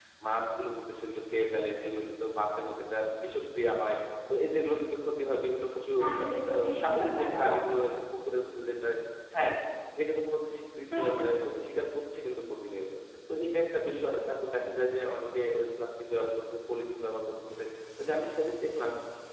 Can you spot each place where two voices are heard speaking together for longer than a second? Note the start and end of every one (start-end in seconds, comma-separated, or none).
6.0-7.6